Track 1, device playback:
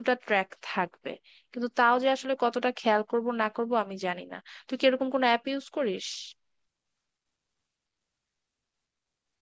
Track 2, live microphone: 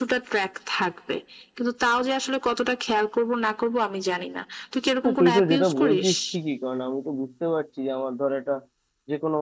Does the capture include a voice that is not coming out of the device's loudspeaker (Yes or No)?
Yes